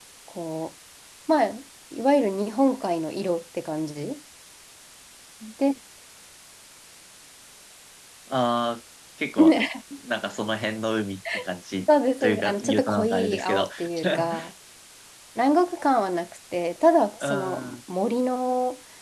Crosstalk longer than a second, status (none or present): present